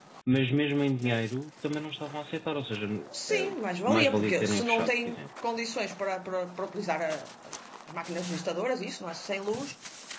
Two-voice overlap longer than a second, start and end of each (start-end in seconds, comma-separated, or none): 3.9-5.2